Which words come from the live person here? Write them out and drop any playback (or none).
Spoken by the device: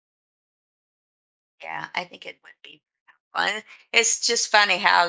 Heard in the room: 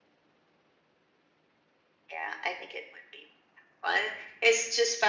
none